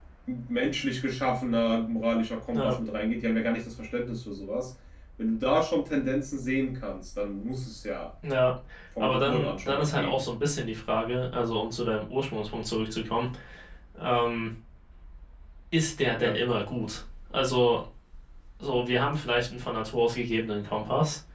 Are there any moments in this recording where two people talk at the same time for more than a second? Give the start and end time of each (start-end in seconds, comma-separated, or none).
9.0-10.2